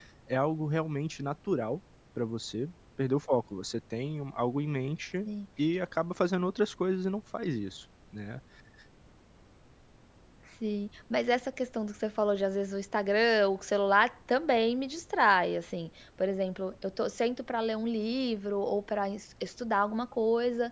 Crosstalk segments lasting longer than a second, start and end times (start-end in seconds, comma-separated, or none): none